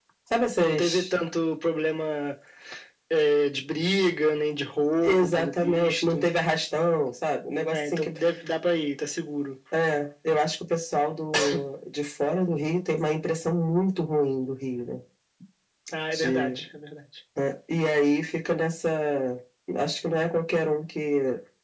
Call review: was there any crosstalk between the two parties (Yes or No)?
Yes